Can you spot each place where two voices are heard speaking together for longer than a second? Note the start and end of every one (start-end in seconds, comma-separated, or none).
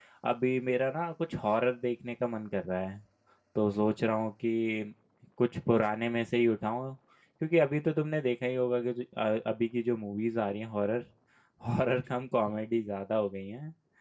none